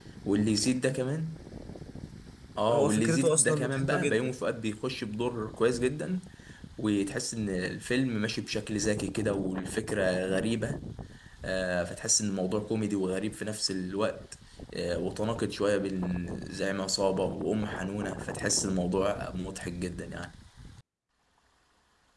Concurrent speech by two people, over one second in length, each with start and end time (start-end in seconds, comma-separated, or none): 2.7-4.3